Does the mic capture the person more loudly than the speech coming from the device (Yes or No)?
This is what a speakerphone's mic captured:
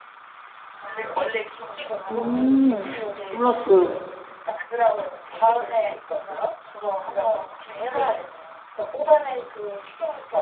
Yes